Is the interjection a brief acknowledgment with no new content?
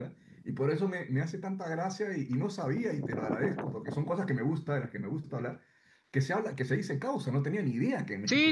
No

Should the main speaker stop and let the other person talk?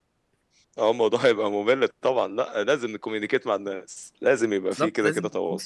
Yes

